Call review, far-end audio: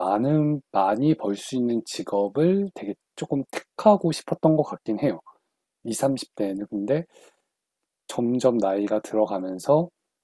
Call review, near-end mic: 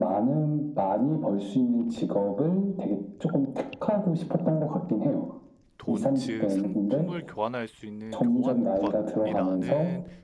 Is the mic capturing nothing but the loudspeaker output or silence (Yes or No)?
No